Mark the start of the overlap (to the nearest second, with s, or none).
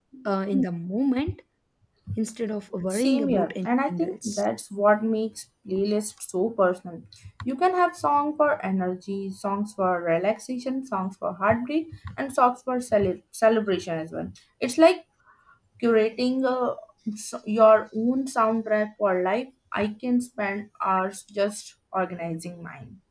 3 s